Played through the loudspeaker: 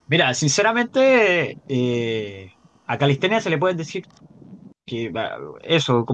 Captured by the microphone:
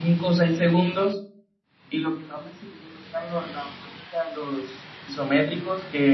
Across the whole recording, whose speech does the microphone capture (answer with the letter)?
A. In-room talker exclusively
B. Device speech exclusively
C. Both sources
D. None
A